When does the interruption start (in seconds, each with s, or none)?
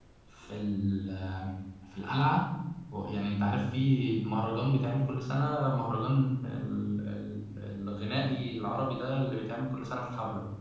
none